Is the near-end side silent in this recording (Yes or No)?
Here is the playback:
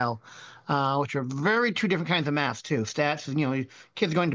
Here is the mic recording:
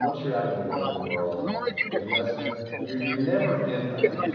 No